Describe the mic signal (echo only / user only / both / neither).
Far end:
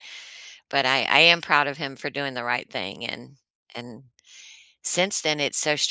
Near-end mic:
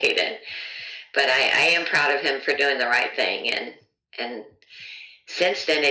echo only